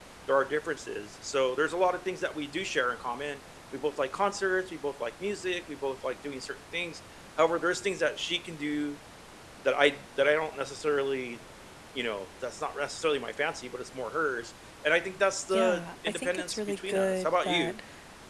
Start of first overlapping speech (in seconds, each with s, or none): 15.5 s